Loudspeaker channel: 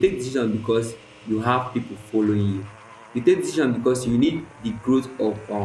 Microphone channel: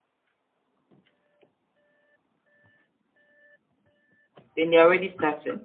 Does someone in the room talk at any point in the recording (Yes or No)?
Yes